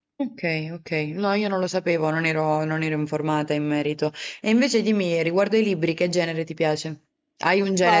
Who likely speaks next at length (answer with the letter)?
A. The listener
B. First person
A